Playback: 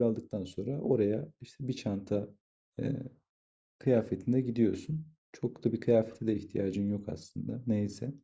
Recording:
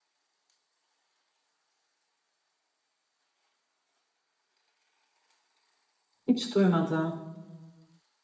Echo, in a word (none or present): none